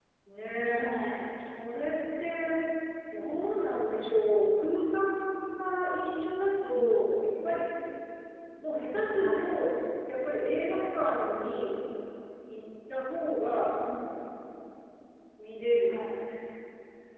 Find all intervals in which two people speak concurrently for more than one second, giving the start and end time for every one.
none

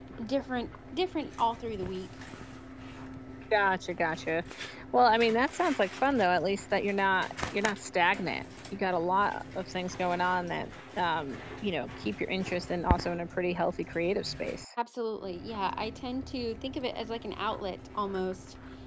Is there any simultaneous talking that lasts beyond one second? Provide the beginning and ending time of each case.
none

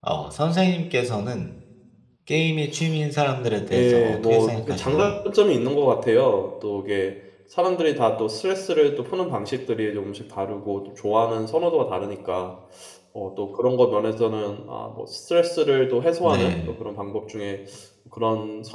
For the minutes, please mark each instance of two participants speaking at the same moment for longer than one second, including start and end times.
3.7-5.1

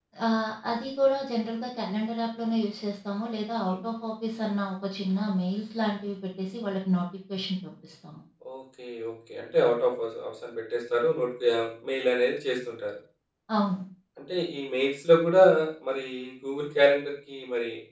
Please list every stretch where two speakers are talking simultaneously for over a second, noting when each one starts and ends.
none

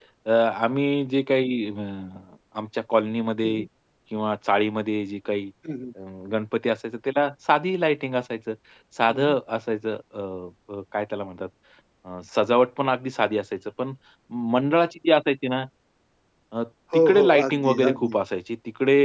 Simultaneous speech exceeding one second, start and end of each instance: 16.9-18.2

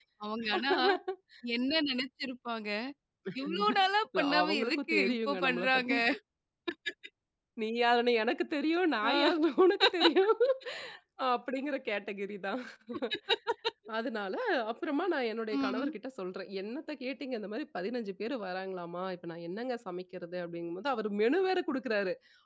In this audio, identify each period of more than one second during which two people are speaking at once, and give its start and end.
4.2-5.9

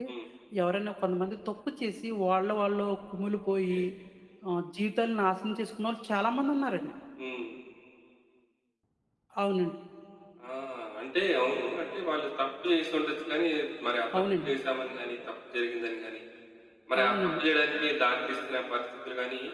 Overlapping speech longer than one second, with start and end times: none

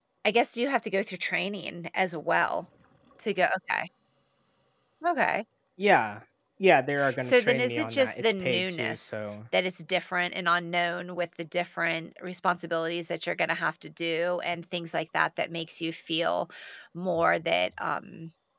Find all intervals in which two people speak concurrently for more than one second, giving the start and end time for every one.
7.2-9.2

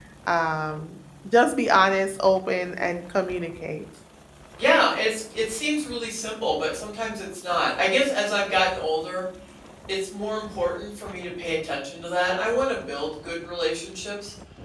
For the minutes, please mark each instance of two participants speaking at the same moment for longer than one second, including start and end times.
none

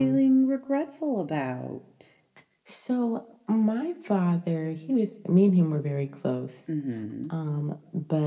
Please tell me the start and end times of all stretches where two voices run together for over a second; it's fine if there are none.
none

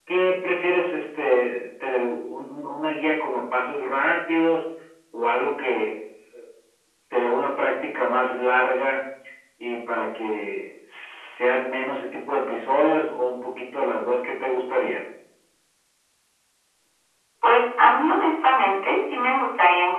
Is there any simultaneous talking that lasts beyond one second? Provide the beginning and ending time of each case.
none

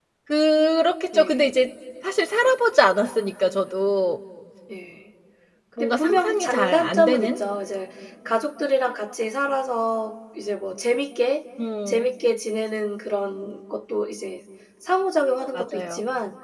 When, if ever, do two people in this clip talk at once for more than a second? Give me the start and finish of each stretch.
5.8-7.4

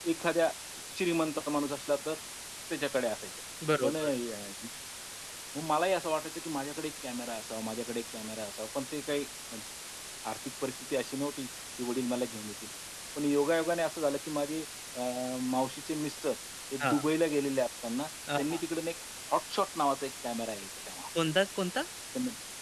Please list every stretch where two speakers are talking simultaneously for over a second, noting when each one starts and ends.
none

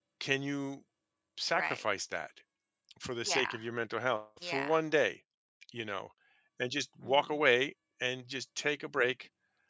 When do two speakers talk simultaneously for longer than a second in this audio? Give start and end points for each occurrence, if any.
none

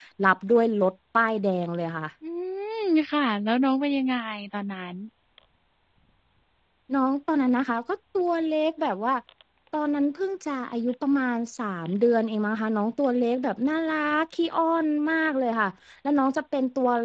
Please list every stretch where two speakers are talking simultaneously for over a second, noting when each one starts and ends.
none

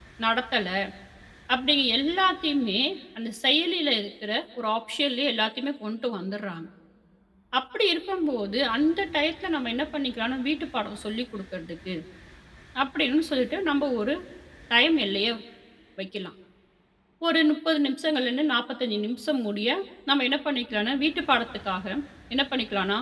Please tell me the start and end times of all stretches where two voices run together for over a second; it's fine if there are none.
none

